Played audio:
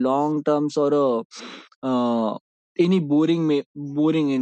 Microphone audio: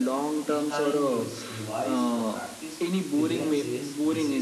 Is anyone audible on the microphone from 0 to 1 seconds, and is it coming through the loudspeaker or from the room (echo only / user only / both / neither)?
both